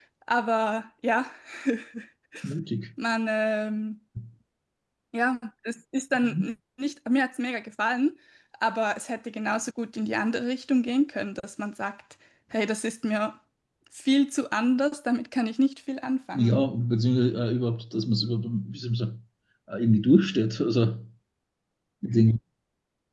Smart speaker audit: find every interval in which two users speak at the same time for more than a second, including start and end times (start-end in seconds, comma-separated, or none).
none